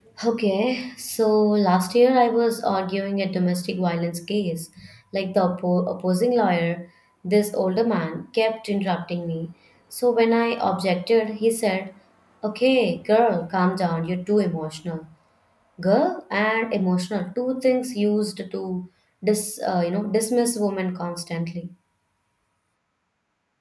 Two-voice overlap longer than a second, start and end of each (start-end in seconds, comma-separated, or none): none